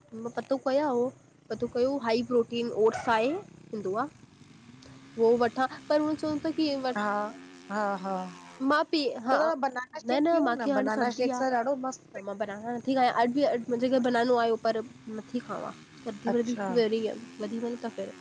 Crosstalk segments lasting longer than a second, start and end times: 10.1-11.4

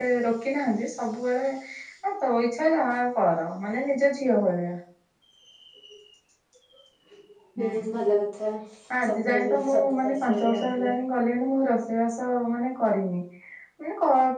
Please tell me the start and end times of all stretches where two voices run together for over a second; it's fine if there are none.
9.0-10.9

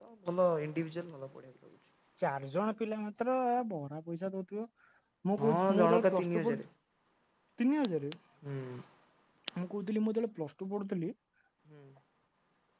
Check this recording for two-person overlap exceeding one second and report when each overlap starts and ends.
5.4-6.6

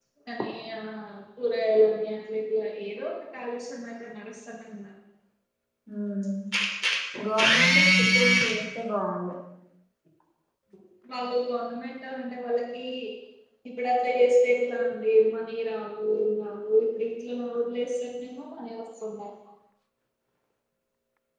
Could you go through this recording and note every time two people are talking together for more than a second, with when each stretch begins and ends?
none

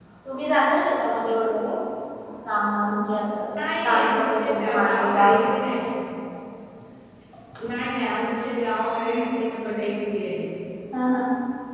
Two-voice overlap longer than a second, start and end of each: 3.8-5.3

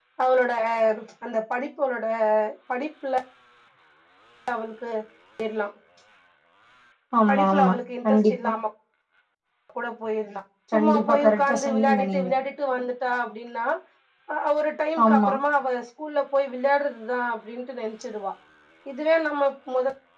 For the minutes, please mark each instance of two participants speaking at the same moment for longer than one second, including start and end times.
10.8-12.3

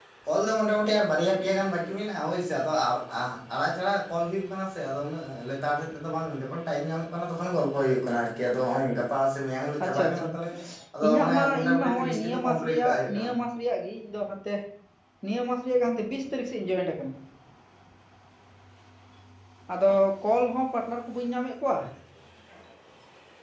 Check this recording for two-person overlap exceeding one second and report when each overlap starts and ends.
11.0-13.3

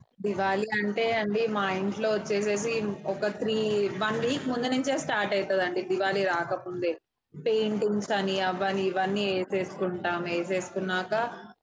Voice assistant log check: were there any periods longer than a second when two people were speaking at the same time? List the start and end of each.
none

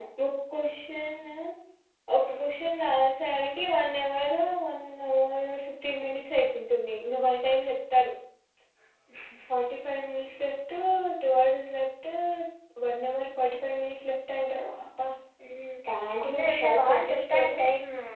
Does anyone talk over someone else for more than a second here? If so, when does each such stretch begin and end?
16.2-17.6

